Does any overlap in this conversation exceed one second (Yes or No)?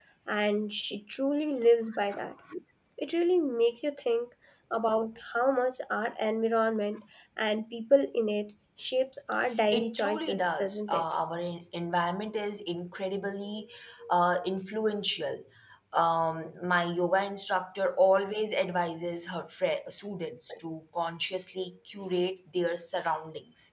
Yes